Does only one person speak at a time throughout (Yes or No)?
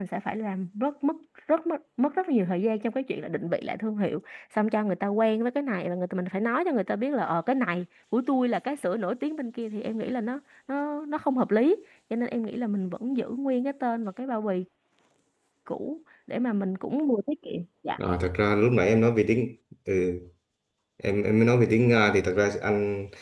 Yes